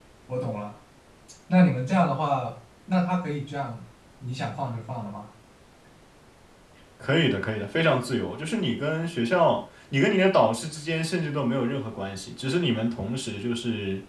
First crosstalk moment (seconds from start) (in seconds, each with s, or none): none